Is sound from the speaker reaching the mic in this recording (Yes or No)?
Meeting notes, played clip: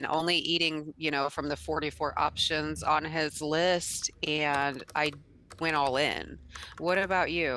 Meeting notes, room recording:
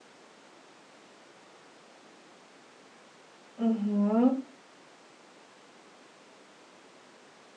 No